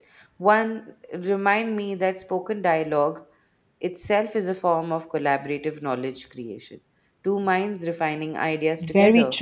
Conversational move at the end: taking over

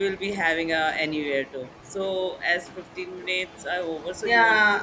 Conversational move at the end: taking over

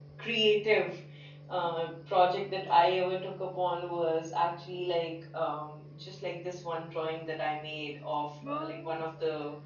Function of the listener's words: listening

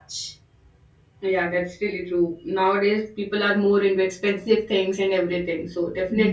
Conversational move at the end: listening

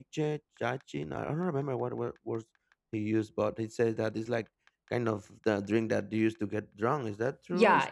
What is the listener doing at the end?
taking over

